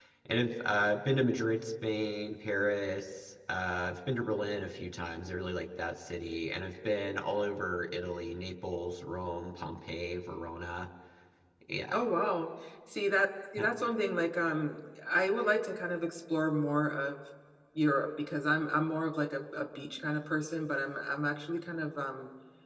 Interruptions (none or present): none